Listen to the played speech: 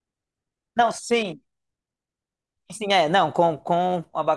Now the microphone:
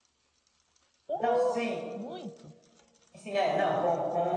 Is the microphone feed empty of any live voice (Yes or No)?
No